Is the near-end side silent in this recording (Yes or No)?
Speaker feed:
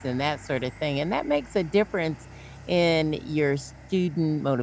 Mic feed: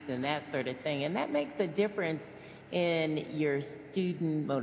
Yes